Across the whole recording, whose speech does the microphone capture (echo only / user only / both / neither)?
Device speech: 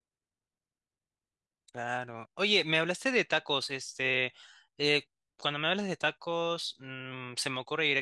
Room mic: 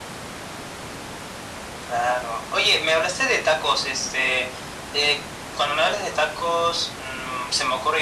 echo only